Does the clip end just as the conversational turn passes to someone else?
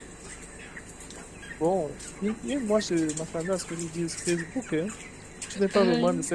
No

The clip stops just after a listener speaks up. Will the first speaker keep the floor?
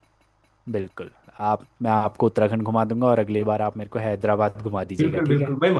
No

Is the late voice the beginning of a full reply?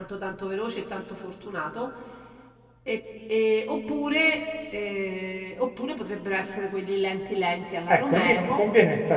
Yes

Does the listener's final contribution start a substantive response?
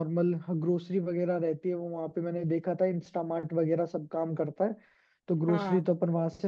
No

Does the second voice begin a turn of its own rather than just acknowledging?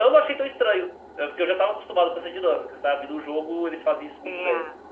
Yes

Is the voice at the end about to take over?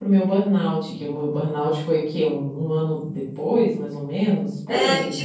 Yes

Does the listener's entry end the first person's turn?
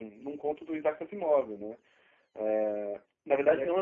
No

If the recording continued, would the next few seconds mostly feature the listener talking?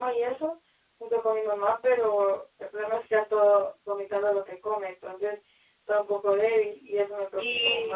Yes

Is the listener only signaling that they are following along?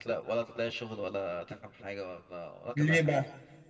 Yes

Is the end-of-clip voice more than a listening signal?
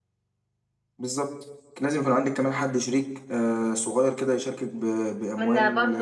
Yes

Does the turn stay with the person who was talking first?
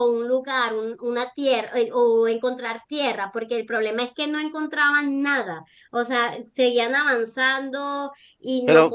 Yes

